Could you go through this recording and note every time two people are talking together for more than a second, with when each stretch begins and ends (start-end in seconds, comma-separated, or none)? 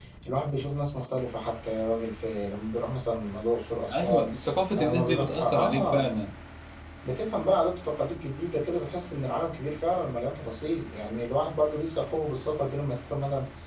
4.7-6.1